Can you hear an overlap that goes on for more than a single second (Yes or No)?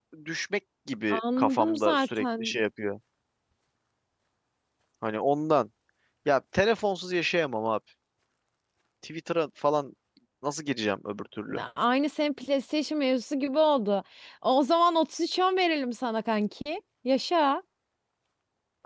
Yes